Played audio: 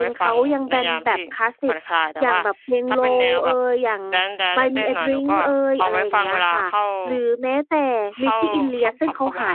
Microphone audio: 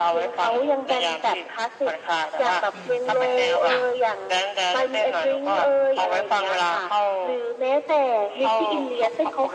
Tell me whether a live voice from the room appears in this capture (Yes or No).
Yes